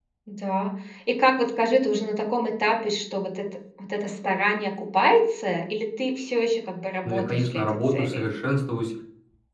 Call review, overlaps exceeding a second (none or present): present